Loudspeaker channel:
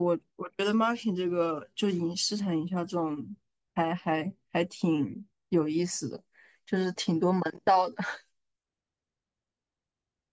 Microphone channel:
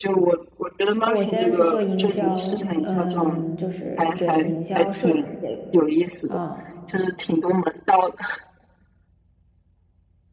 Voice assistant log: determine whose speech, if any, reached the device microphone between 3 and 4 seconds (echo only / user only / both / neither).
both